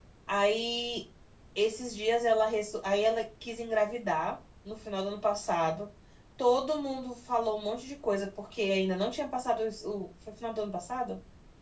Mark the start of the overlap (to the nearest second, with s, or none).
none